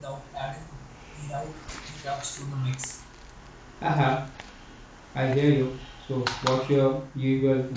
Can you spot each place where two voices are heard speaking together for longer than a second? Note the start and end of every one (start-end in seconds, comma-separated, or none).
none